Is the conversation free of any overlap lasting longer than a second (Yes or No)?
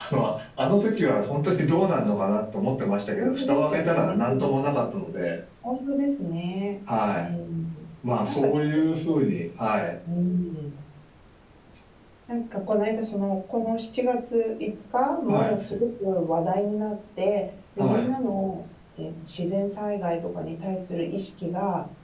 No